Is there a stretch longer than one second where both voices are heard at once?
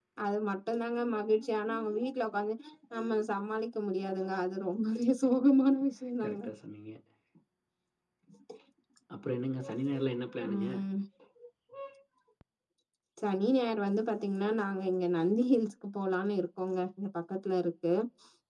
No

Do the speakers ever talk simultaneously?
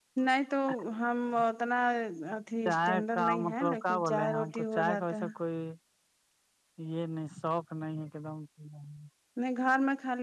Yes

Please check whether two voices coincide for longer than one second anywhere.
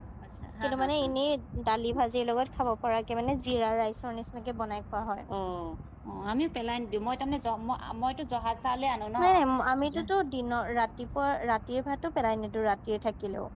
No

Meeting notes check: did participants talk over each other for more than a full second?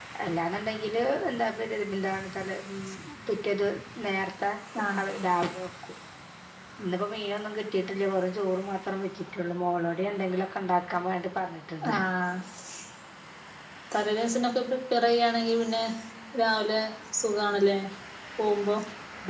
No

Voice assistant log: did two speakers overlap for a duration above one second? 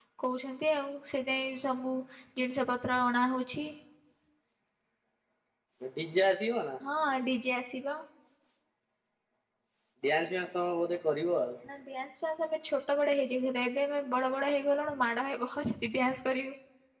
No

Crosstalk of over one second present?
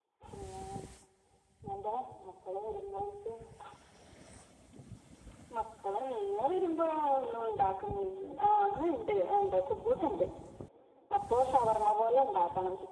No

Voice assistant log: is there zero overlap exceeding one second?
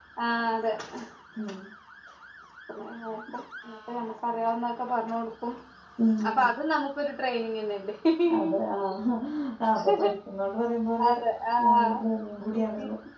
Yes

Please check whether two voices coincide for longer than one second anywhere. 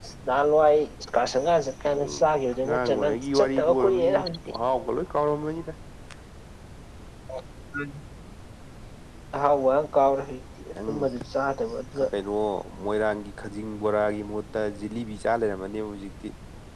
Yes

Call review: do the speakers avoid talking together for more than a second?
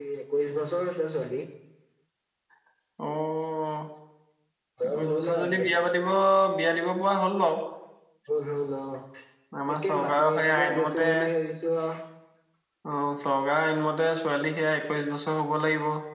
No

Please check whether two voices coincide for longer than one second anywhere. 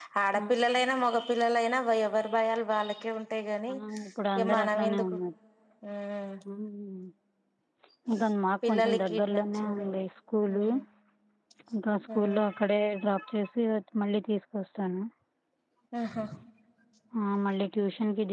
Yes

